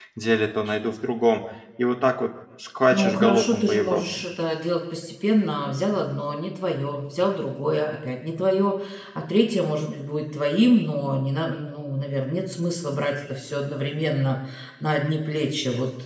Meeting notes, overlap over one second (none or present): present